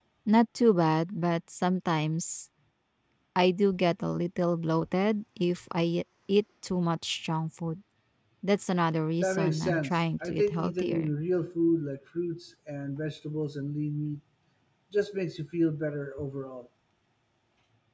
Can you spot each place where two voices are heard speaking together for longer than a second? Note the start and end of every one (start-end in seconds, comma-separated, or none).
9.2-11.1